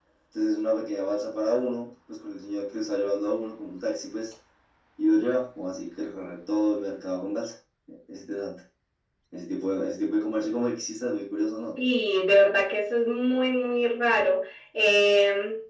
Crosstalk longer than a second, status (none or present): none